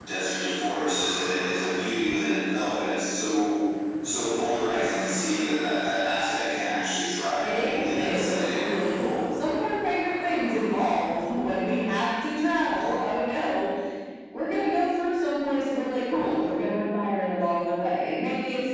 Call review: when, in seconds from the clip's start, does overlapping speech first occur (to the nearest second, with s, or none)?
7 s